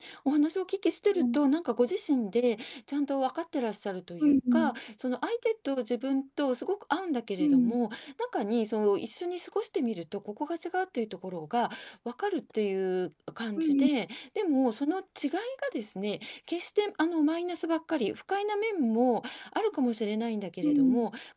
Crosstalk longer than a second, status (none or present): none